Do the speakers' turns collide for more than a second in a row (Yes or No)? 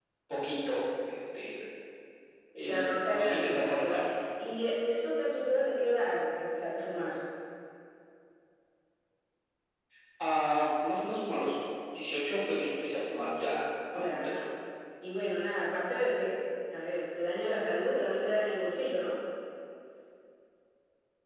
Yes